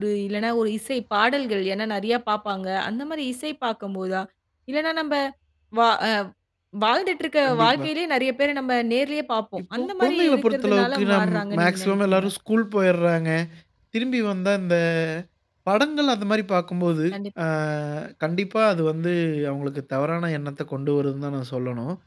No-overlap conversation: No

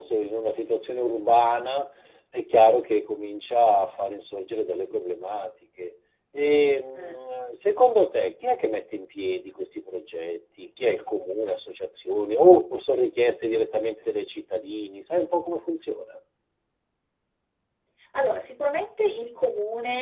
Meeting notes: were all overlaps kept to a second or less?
Yes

